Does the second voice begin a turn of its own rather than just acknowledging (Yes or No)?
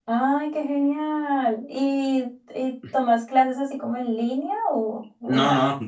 Yes